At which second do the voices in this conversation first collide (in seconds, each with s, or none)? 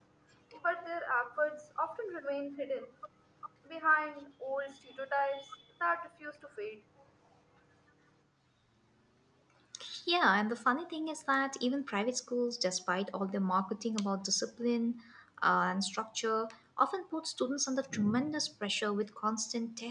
none